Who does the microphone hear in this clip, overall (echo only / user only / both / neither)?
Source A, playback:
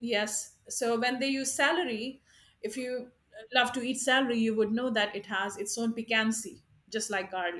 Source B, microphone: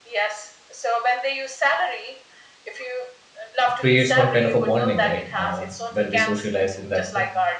both